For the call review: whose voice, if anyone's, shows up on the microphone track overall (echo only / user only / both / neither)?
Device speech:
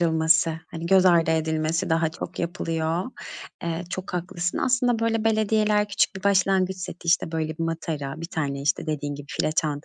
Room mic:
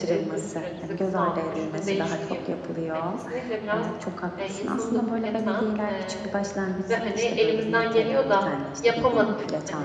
both